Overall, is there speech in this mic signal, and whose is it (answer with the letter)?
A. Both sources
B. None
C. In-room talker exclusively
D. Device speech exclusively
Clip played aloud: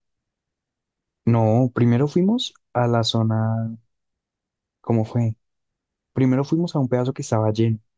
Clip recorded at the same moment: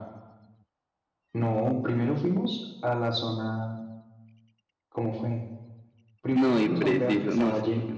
A